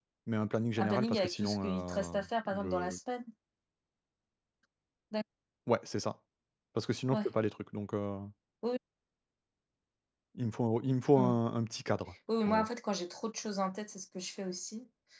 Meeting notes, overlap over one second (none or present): present